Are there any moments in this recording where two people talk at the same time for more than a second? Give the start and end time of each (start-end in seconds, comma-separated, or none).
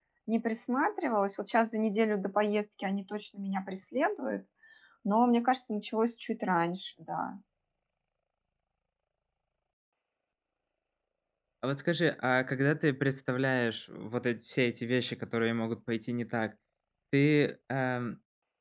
none